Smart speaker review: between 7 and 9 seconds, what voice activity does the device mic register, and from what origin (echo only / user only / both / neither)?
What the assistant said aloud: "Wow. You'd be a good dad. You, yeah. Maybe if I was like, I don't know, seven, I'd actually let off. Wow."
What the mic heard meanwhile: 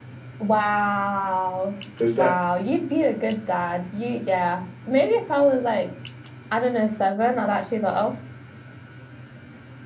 echo only